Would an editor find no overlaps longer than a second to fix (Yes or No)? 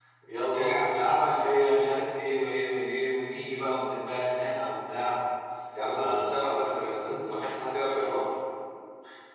Yes